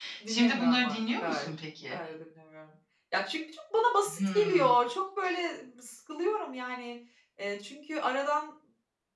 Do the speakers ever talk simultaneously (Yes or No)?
Yes